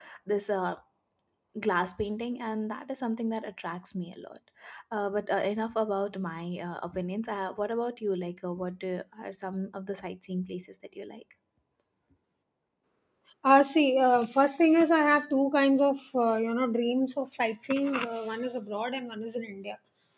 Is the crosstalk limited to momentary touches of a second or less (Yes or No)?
Yes